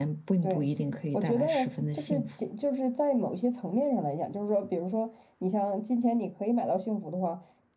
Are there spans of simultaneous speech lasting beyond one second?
Yes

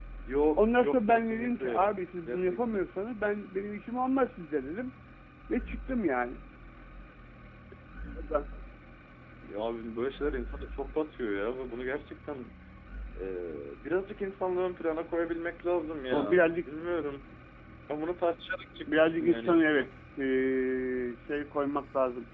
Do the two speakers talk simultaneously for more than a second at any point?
Yes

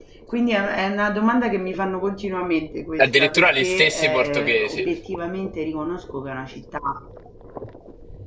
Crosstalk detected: Yes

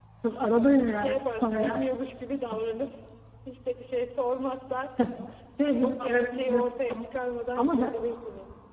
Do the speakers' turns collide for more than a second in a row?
Yes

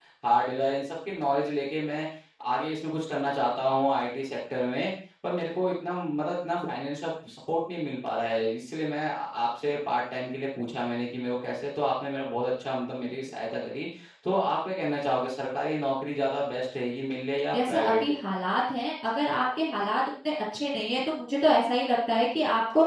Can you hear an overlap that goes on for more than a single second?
No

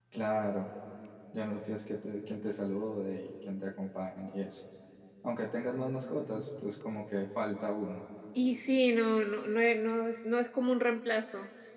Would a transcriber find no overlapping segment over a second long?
Yes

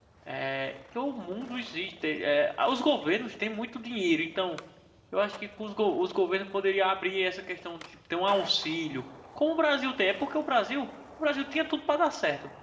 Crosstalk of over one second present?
No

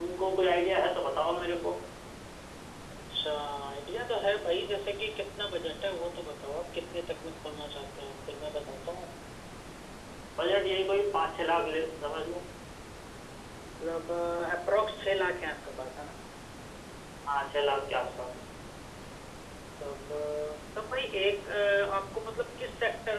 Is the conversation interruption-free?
Yes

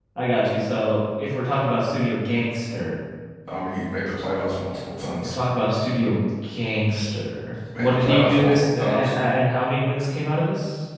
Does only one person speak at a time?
No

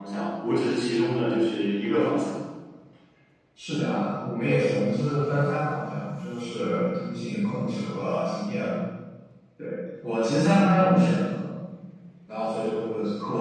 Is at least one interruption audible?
No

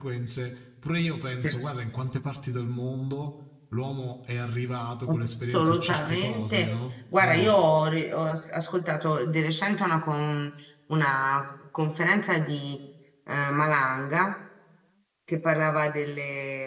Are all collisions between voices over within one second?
No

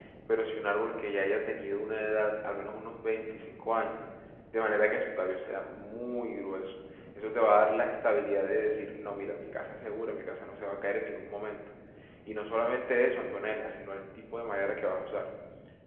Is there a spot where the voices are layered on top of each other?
No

